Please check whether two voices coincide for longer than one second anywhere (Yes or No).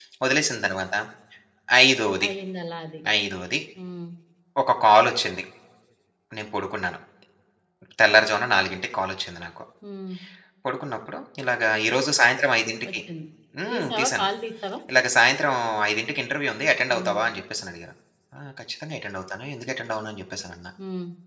No